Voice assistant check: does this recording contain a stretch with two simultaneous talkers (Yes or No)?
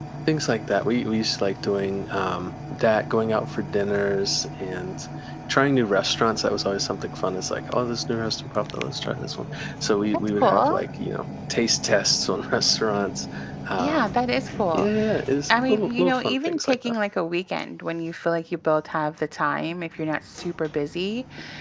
Yes